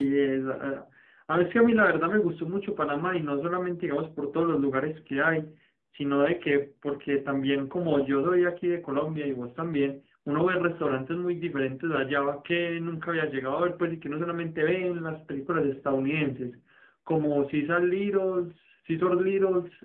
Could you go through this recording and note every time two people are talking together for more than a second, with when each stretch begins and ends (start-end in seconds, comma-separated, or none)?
none